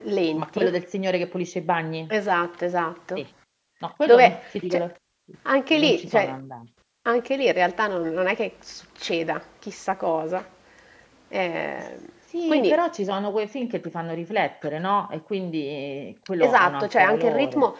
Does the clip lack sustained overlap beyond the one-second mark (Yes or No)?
No